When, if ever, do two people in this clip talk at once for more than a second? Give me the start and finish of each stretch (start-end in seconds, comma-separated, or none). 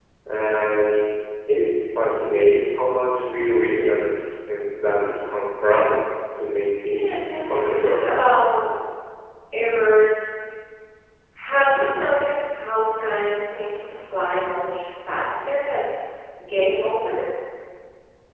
6.9-8.2